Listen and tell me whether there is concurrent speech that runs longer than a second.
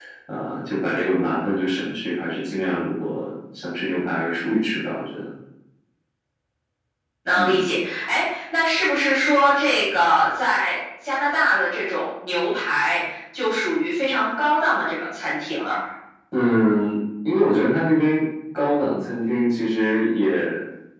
No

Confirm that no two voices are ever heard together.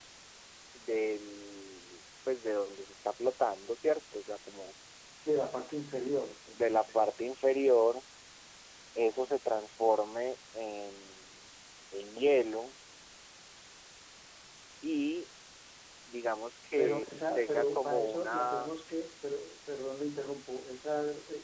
No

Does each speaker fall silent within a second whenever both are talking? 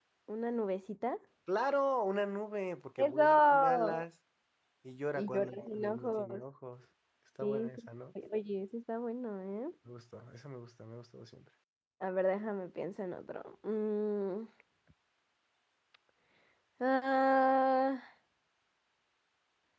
No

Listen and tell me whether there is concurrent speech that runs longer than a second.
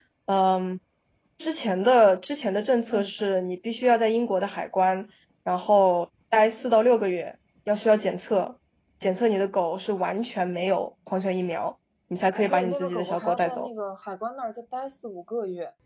Yes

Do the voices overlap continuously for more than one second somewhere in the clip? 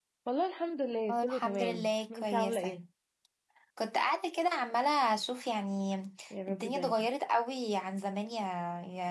Yes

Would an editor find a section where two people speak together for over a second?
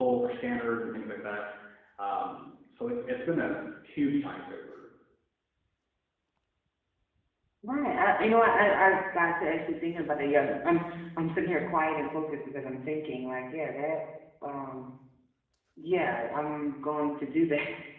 No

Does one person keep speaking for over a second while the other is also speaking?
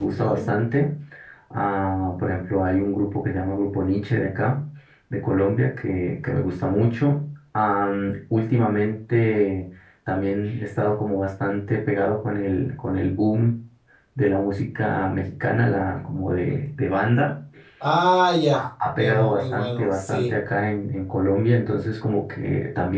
Yes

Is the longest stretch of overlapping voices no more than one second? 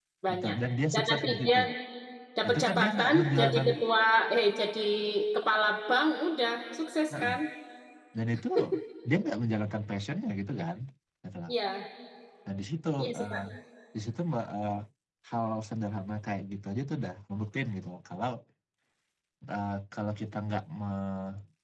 No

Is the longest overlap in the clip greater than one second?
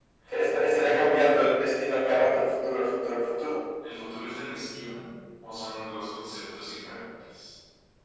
No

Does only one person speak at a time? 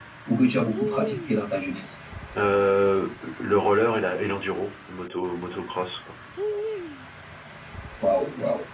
Yes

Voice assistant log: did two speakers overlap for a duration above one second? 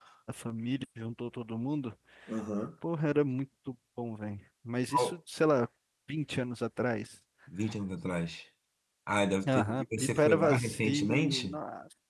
Yes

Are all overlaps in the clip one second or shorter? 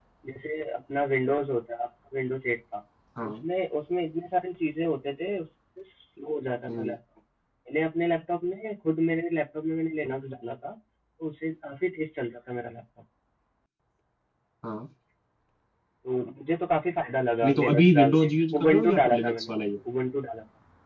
No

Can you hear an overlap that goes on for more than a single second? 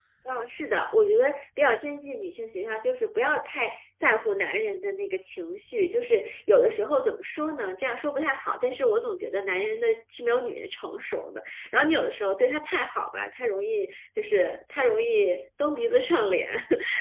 No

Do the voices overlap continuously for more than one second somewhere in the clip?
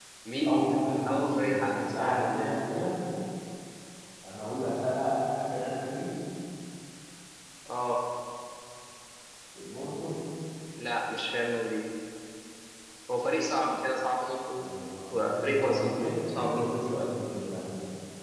Yes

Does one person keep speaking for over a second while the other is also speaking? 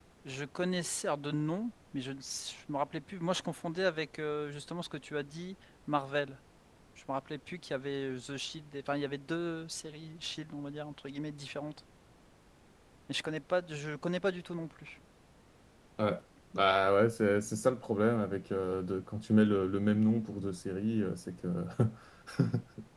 No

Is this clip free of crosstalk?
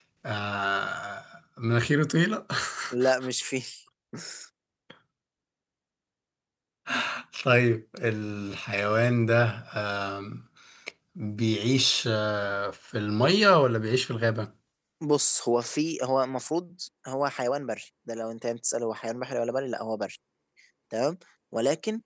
Yes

